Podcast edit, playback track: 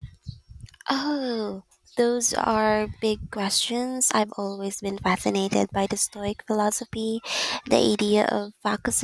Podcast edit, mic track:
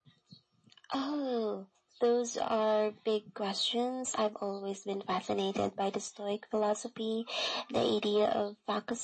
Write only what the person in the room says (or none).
none